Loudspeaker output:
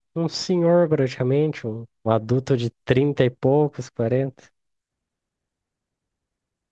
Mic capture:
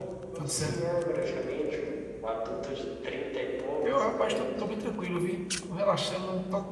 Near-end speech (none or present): present